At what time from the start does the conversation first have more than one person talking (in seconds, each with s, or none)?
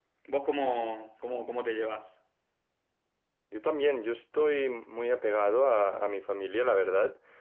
none